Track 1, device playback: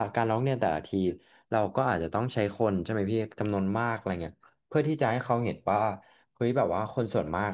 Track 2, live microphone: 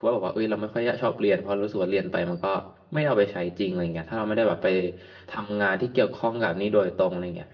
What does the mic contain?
user only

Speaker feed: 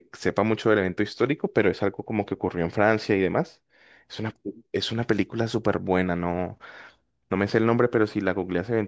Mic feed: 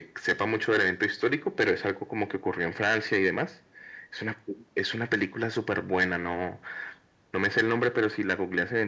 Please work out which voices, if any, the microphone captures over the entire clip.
echo only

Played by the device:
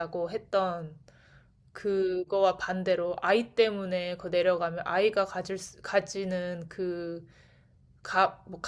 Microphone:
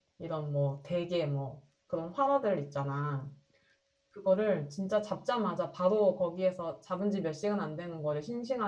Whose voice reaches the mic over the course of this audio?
user only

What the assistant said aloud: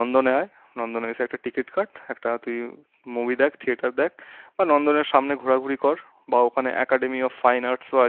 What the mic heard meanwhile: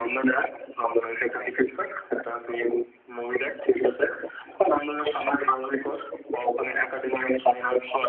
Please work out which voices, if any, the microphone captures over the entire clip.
echo only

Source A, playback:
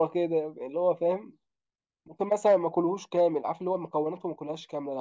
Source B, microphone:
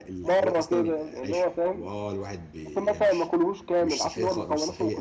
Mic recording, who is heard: both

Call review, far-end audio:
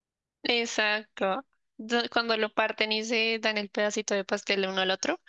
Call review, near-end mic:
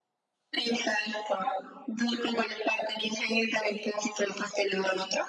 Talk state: echo only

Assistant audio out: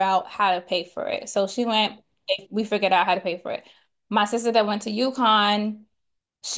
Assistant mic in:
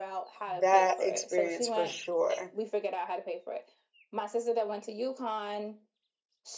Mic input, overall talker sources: both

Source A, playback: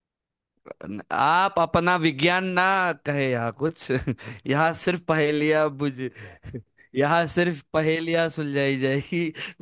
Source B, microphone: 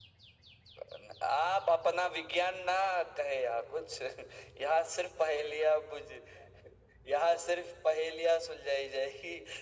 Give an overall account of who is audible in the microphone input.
echo only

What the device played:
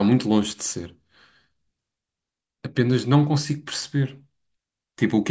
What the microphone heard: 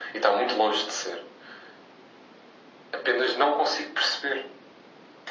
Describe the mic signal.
echo only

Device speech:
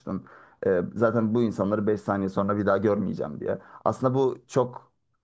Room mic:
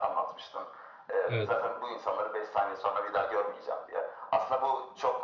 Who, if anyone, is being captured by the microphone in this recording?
both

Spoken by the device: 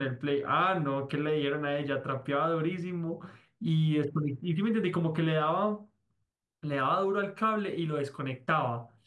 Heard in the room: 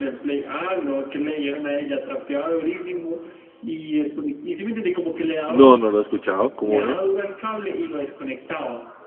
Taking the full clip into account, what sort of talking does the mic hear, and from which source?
both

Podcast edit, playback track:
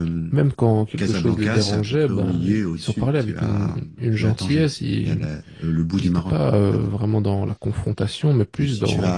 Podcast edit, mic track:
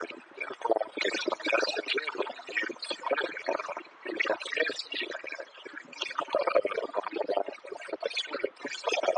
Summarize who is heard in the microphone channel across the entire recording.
echo only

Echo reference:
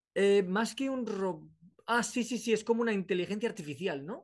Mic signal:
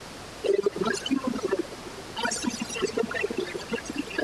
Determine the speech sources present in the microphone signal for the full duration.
echo only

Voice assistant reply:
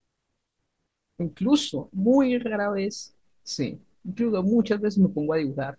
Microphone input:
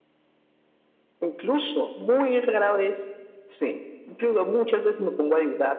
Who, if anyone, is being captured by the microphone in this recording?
echo only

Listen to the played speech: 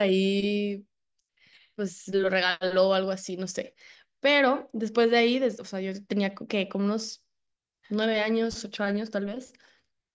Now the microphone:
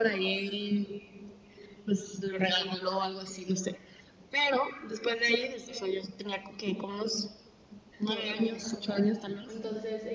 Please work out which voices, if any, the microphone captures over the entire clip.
both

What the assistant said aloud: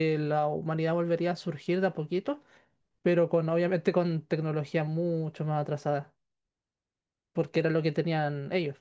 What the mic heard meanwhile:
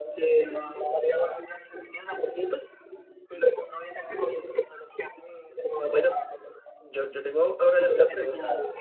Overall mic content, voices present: both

